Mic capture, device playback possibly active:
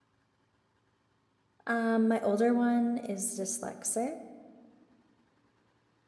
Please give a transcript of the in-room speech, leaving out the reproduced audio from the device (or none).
Um, my older one is dyslexic